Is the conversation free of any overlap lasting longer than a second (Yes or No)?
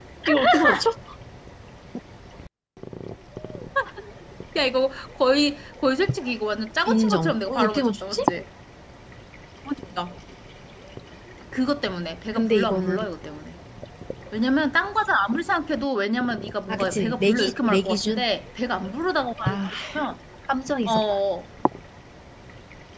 No